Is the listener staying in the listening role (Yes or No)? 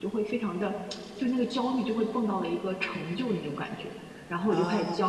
Yes